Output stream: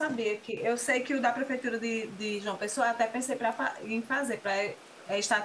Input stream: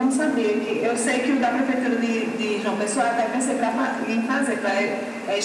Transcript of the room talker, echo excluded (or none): none